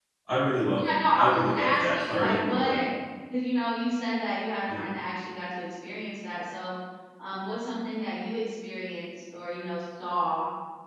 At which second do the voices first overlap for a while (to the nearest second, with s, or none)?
1 s